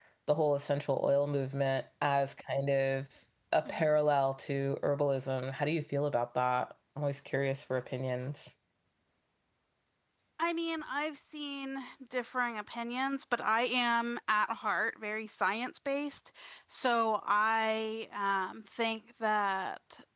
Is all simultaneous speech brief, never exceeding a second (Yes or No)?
Yes